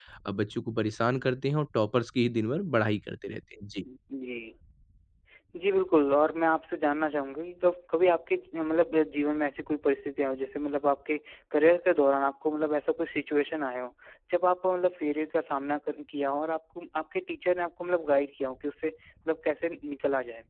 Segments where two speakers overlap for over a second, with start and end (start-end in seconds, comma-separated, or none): none